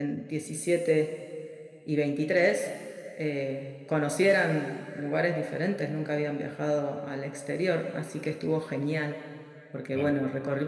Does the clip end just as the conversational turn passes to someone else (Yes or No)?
No